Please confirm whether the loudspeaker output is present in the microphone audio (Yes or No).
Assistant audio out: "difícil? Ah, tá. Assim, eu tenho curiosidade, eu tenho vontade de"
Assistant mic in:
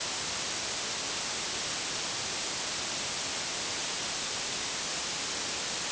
No